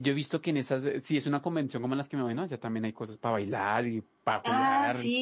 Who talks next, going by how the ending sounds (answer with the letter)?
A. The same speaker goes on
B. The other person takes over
B